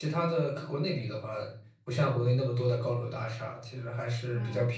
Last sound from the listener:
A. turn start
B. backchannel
B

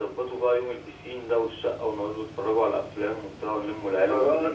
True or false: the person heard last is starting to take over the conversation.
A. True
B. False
A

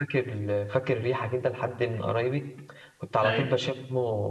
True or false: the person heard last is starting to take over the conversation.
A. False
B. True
A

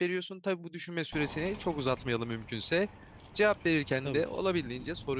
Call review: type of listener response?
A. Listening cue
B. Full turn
A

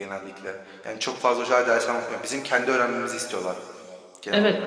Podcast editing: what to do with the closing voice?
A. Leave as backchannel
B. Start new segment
B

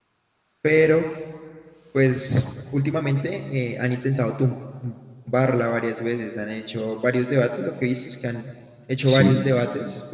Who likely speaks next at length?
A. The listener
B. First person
B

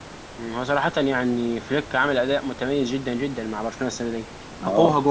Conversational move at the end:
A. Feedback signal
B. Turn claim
A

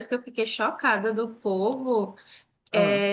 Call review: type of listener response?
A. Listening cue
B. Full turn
A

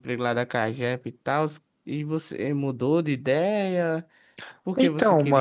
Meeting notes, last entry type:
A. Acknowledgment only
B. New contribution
A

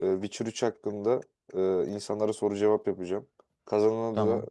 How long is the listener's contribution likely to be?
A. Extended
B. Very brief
B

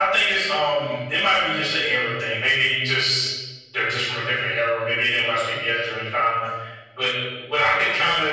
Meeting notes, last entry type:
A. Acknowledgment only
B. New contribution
A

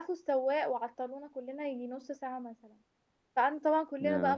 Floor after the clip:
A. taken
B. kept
B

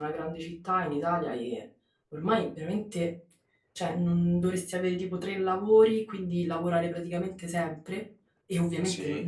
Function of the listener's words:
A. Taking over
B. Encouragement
B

